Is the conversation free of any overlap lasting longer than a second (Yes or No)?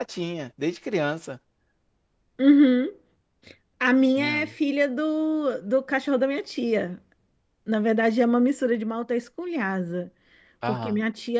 Yes